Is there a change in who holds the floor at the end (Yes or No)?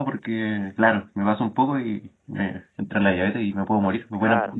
Yes